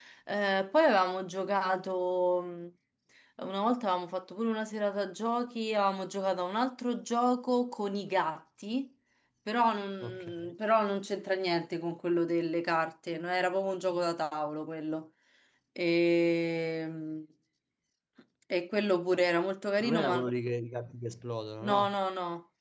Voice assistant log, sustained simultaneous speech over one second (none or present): none